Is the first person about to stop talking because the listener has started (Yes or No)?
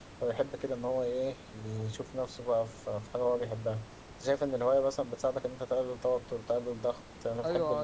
Yes